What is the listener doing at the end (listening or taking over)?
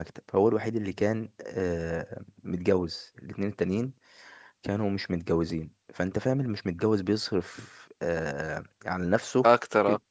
listening